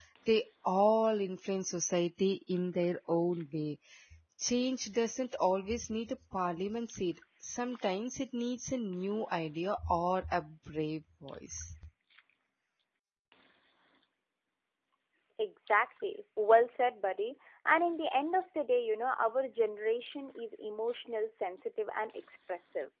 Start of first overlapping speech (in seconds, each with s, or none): none